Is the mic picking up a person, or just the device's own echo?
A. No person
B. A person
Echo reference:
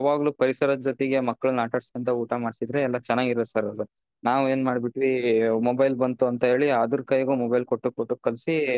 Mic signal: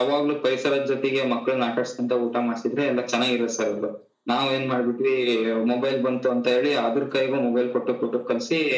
A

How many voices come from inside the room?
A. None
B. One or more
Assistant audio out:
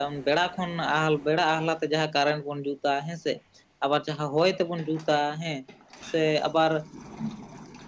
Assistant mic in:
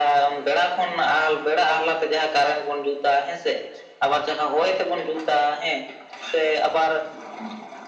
A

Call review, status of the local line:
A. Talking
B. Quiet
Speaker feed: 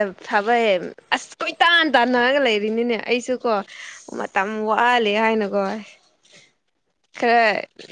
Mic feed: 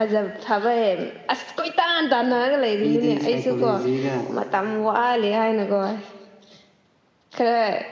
A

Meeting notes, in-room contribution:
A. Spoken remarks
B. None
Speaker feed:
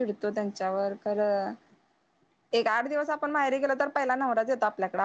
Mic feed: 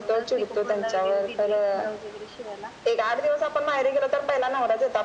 A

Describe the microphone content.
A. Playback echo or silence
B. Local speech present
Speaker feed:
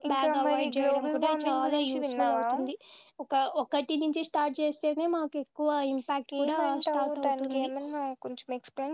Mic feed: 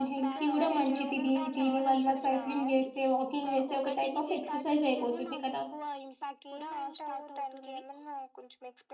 B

